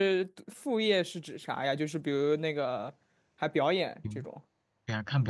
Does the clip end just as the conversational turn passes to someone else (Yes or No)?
Yes